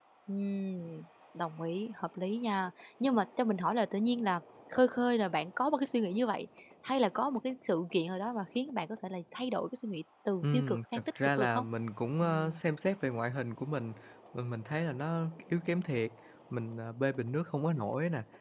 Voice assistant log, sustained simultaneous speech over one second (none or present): present